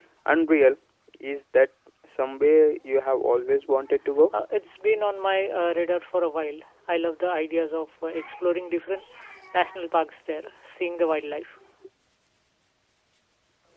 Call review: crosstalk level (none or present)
none